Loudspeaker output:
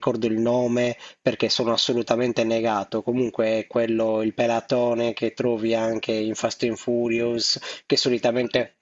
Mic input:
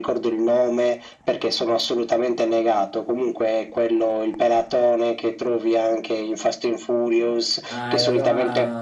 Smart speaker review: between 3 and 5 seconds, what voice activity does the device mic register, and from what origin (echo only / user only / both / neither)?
echo only